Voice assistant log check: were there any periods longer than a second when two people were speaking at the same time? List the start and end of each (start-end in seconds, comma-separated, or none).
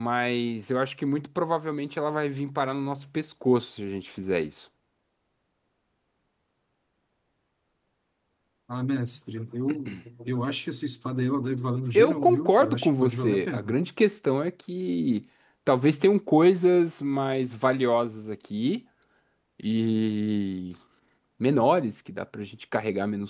11.9-13.8